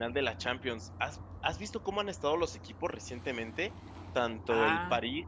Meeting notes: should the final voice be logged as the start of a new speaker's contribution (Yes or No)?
No